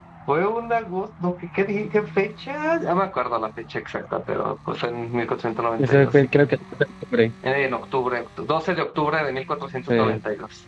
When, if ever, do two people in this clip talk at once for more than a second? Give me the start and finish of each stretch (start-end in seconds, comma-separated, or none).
none